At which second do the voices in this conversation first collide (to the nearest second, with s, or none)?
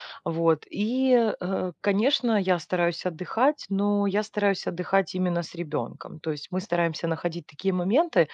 none